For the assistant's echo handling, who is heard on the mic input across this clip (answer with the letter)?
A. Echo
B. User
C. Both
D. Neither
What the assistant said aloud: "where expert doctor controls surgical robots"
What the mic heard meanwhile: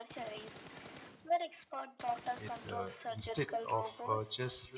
C